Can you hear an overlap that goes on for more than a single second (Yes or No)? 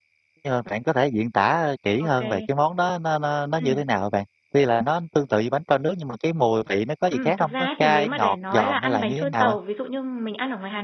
Yes